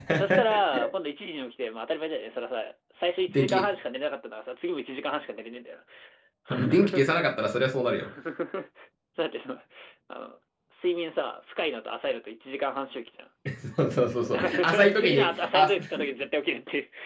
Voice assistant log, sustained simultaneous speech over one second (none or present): present